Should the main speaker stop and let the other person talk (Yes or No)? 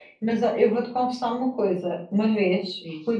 No